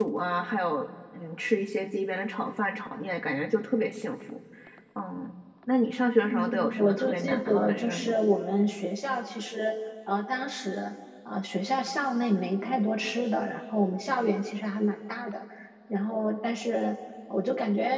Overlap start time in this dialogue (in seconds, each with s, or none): 6.2 s